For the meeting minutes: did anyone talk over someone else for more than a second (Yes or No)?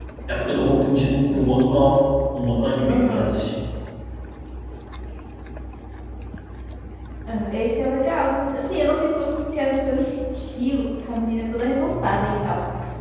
No